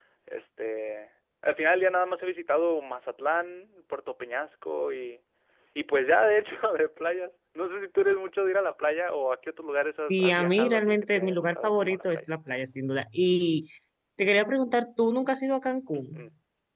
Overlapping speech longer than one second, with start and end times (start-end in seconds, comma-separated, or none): 10.1-12.2